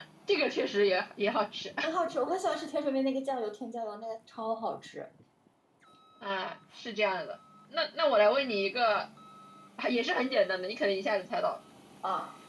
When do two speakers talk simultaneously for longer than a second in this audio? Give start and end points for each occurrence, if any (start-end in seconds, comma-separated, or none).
none